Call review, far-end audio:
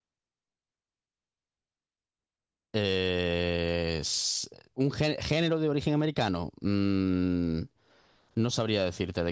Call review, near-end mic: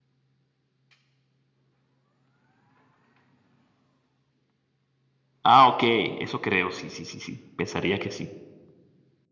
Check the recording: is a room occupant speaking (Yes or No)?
Yes